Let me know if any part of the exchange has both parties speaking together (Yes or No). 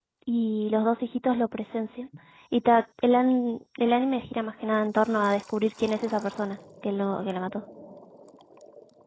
No